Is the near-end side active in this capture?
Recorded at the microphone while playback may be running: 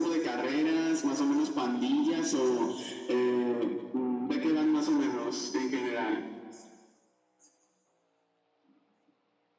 No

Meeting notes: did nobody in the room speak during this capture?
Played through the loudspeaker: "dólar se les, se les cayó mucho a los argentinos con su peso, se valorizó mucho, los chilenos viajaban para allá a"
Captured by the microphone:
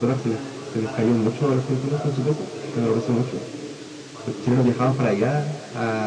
No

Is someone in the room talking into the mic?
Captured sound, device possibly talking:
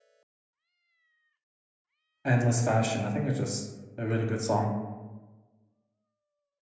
Yes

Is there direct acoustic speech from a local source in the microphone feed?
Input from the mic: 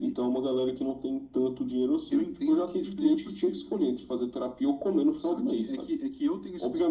No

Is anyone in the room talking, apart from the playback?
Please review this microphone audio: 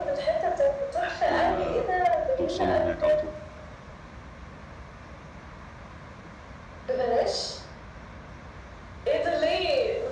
Yes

